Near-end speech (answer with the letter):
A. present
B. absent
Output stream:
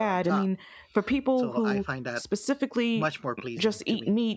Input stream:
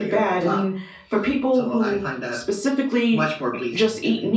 B